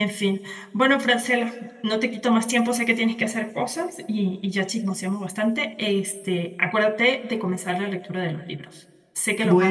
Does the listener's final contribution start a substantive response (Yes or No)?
Yes